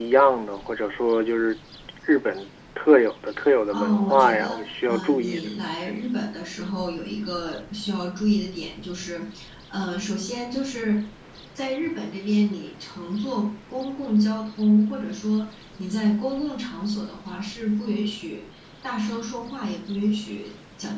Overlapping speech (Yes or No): Yes